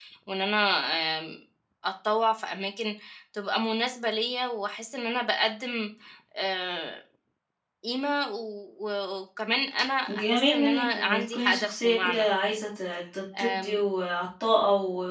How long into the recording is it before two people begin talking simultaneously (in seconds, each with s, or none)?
10.1 s